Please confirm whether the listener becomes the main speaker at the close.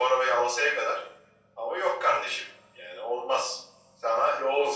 Yes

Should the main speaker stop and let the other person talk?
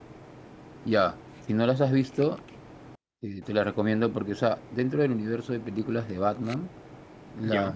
No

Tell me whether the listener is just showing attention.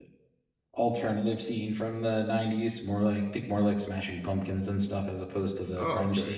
No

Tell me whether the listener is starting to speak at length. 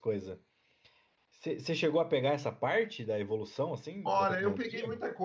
Yes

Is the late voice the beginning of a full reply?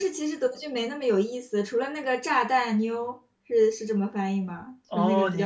Yes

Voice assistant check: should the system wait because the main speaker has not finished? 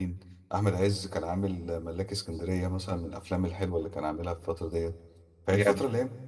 Yes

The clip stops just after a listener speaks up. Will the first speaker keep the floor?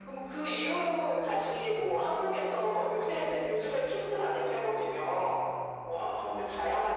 Yes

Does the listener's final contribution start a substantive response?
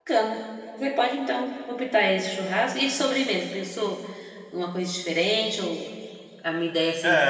Yes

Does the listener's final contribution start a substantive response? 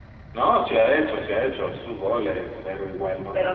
Yes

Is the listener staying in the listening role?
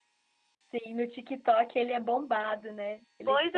No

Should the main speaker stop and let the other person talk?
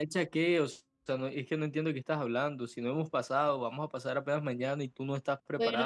Yes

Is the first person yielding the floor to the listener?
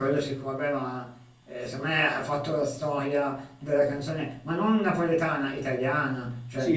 Yes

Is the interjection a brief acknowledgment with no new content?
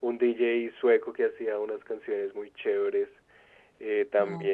Yes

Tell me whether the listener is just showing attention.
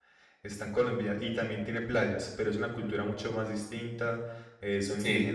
Yes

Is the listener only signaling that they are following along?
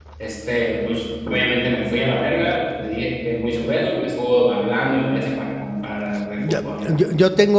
No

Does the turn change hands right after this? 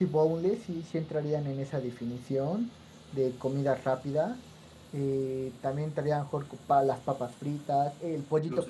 No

